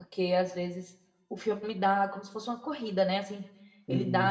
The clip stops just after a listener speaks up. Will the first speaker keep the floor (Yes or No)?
Yes